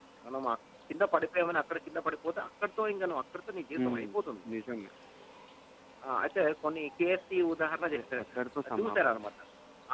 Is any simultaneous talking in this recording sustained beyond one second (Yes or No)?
No